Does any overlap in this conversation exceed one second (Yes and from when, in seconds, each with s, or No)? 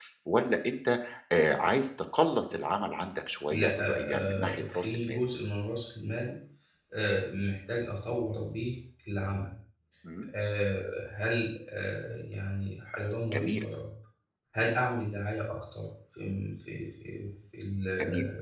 Yes, from 3.5 s